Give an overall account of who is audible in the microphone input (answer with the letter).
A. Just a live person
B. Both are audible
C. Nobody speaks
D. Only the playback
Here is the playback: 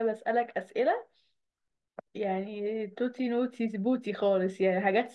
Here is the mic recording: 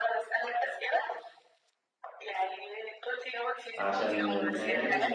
B